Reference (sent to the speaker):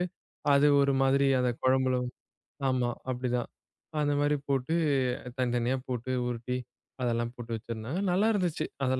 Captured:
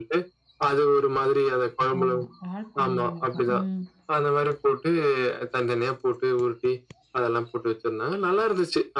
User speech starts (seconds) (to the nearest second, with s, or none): 2 s